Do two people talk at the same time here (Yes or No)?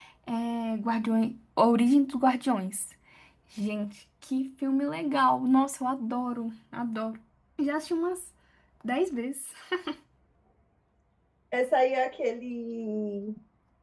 No